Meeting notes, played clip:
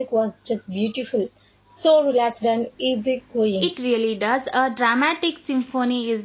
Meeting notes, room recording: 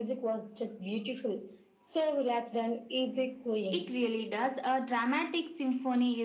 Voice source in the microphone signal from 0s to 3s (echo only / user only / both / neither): echo only